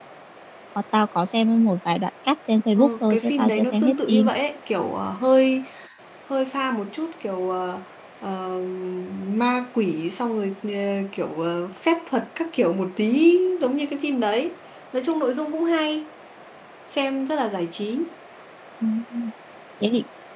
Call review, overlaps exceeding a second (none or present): present